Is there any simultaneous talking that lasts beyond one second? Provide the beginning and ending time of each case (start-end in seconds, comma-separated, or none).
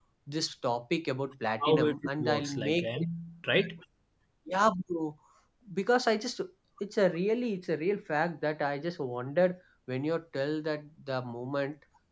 1.6-2.9